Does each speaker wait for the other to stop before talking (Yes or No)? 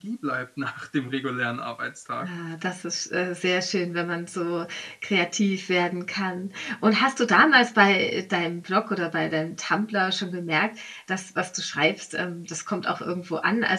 Yes